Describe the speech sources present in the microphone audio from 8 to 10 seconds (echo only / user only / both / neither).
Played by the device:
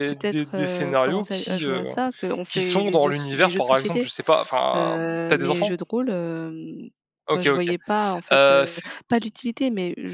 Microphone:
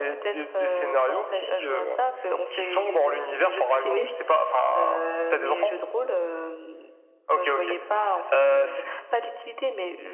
echo only